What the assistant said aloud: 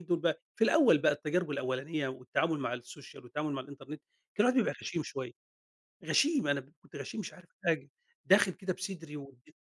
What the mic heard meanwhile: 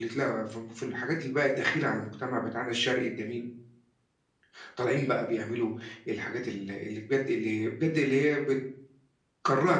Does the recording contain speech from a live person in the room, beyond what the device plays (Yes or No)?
Yes